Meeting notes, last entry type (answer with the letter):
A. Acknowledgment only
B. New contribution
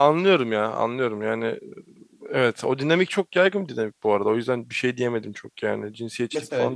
B